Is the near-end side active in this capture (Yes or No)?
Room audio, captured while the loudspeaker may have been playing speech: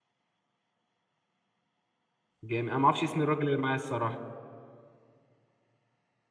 Yes